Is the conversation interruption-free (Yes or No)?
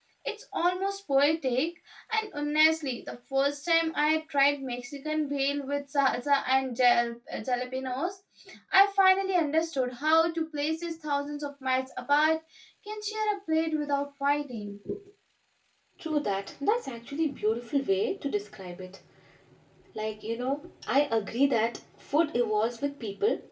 Yes